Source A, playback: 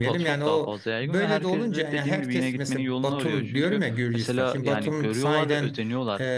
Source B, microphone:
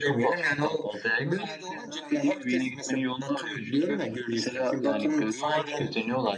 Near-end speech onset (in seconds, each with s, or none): none